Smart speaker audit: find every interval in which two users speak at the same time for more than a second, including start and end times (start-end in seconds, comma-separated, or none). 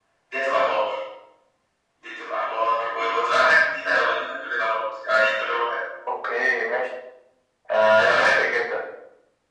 none